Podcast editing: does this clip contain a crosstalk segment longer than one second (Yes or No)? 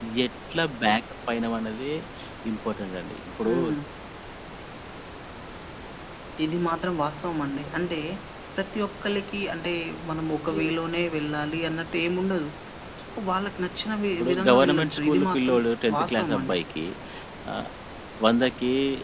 Yes